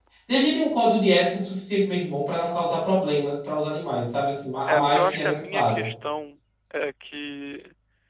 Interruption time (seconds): 5 s

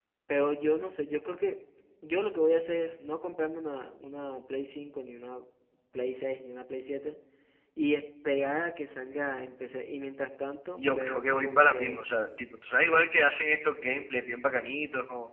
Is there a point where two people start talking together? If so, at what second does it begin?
11 s

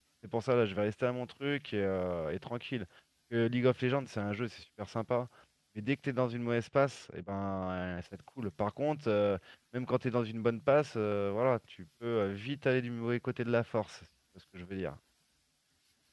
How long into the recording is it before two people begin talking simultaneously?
none

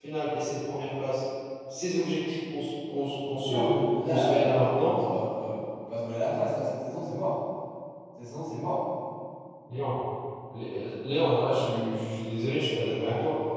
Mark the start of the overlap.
3 s

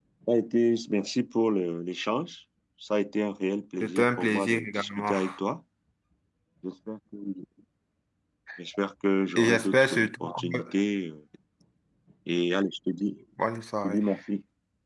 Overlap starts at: 4 s

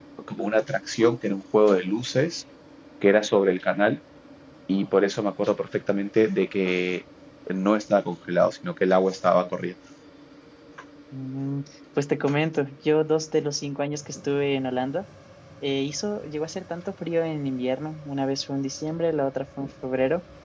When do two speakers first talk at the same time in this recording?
none

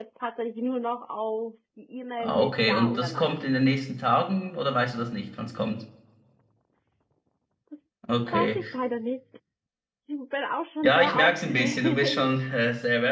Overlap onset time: 2 s

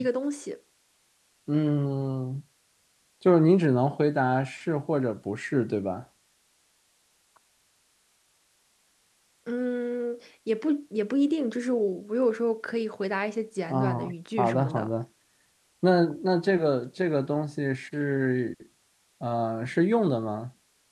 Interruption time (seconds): 14 s

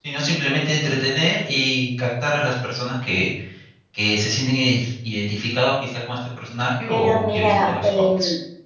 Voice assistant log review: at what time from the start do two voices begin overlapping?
7 s

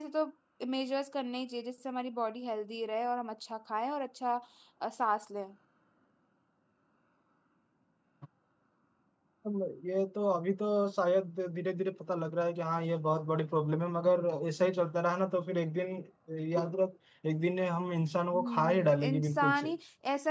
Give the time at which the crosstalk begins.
18 s

